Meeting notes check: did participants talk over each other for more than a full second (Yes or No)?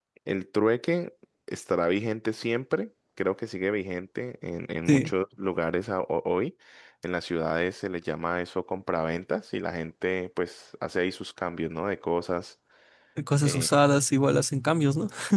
No